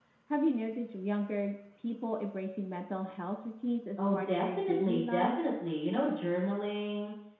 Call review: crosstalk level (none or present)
present